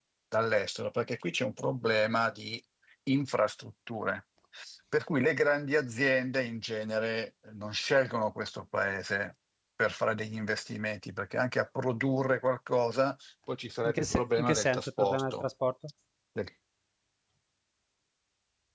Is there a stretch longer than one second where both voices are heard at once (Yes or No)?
Yes